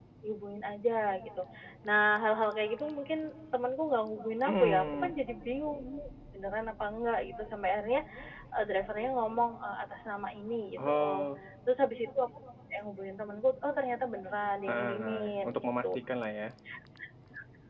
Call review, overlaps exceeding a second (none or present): present